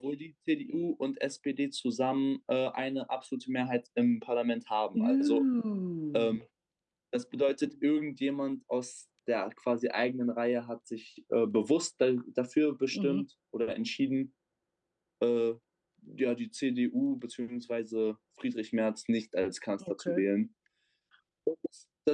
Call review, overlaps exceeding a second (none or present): none